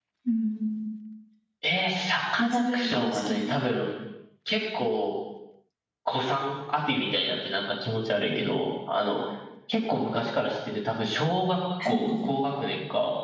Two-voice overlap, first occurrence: 2 s

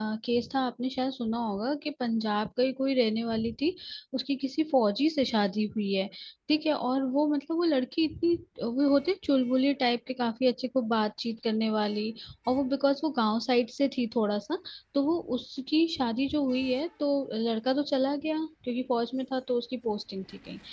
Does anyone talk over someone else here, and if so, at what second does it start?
none

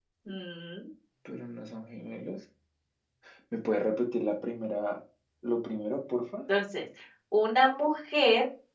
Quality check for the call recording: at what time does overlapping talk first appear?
none

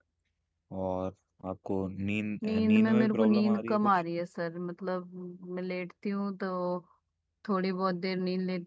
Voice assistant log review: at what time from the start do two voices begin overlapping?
2 s

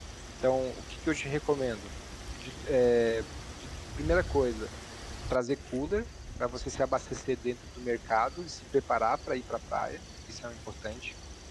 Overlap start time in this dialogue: none

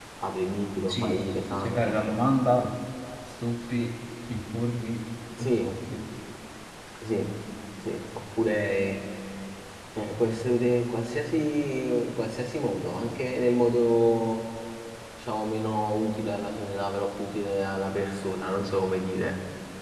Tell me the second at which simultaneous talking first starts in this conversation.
1 s

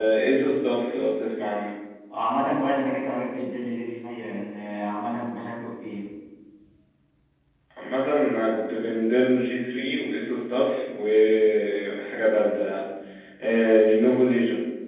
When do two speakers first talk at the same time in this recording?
none

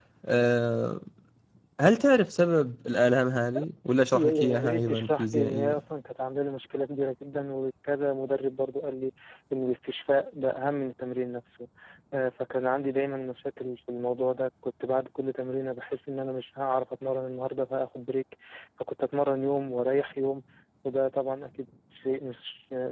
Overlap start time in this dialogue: 4 s

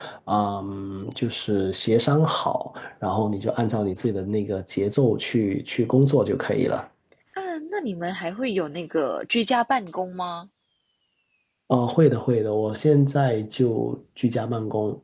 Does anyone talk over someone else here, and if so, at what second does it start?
none

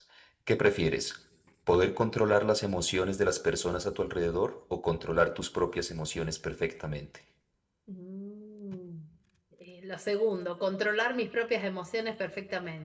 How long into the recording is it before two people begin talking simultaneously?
none

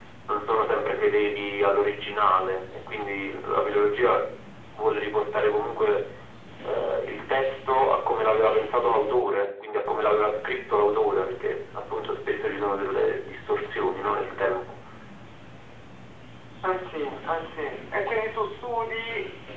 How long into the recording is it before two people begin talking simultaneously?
none

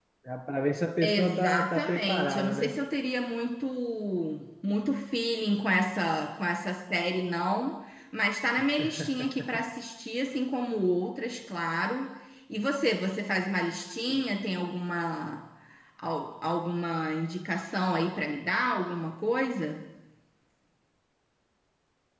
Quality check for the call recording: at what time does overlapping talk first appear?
1 s

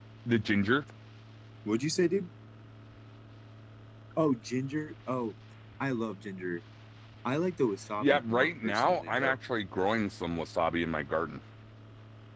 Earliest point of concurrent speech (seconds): 8 s

